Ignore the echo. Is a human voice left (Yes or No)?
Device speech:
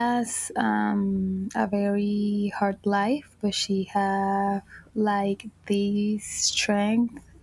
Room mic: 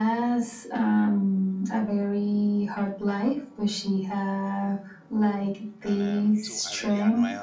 Yes